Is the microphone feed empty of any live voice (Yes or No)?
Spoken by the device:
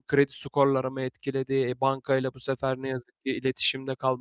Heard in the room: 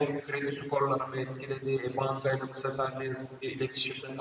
Yes